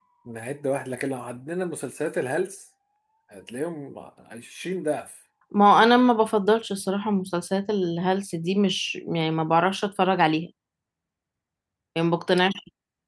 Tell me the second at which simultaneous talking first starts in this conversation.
none

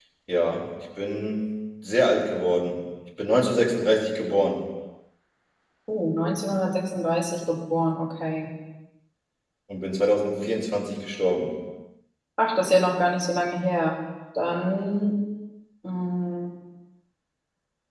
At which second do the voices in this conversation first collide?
none

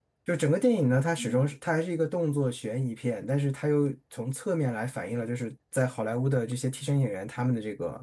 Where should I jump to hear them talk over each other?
none

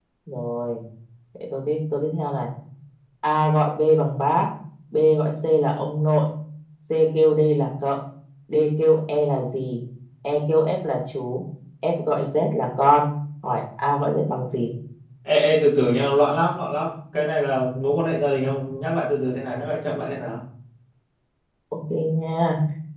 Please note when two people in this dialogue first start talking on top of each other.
none

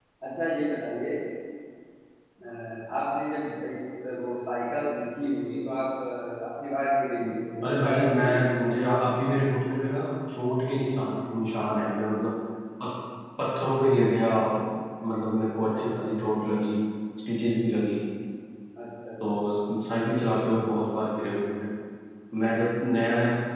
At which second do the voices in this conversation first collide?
7.6 s

